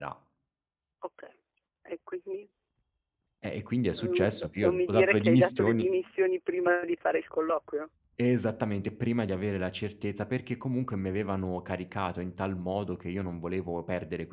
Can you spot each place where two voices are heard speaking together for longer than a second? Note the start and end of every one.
4.0-5.8

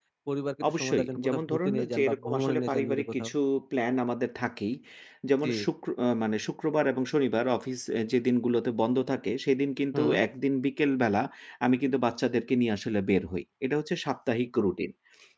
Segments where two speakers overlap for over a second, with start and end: 0.7-3.3

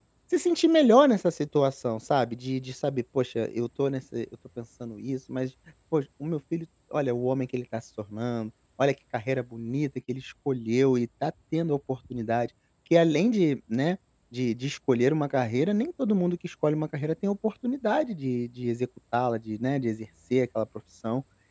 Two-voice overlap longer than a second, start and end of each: none

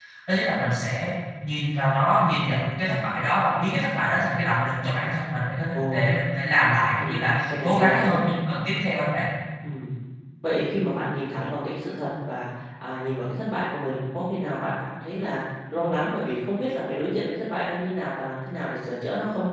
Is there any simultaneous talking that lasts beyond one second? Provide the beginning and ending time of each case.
7.0-8.2

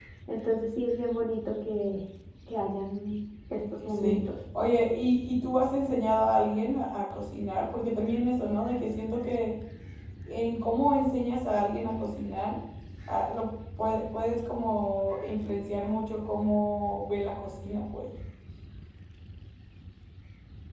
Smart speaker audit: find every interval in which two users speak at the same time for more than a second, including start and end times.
none

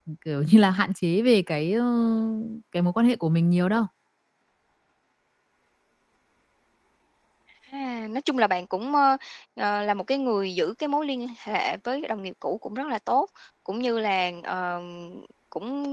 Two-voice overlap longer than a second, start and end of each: none

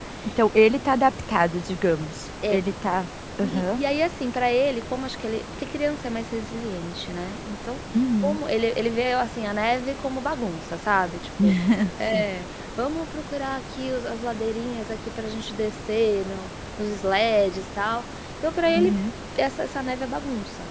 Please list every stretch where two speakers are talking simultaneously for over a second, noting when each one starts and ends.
none

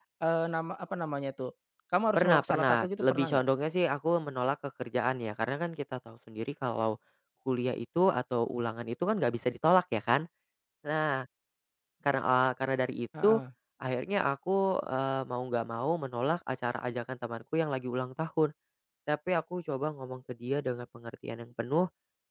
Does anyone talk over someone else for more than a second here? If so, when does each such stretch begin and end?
2.2-3.4

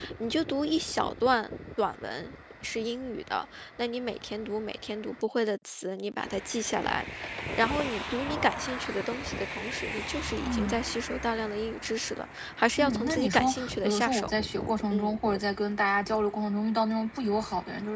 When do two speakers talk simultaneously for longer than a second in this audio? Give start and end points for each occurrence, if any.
12.8-14.3

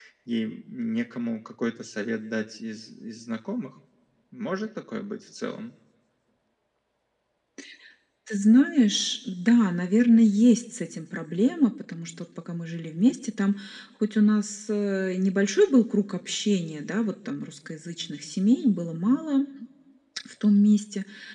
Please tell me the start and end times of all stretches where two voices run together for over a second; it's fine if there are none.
none

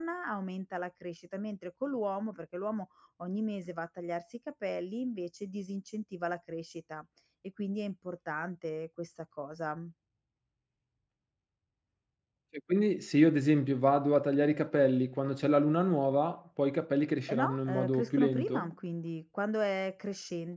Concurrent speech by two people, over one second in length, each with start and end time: 17.3-18.7

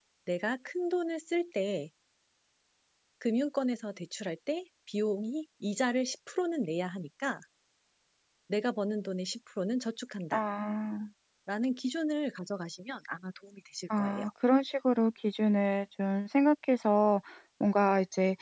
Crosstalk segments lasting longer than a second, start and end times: none

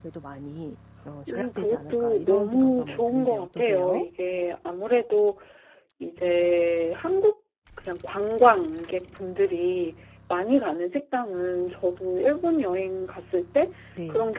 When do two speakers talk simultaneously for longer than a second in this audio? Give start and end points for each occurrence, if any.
1.3-4.0

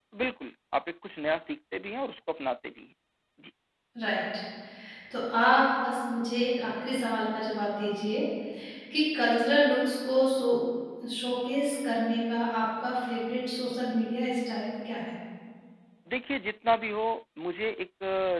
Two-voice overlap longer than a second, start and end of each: none

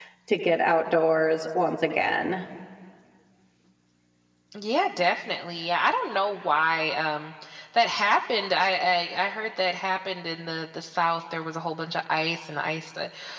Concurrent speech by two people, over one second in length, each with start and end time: none

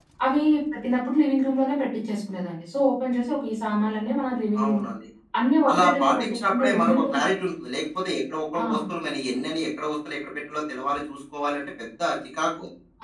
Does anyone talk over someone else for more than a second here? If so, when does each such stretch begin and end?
5.7-7.0

